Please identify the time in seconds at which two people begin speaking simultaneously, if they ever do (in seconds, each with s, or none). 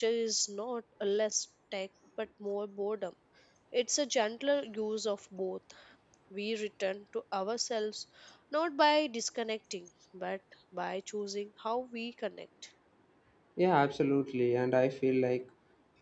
none